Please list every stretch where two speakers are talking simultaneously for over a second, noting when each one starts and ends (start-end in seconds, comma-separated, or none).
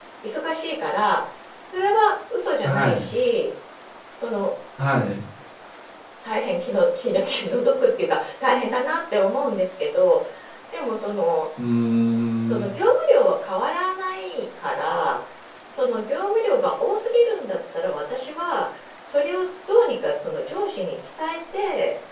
none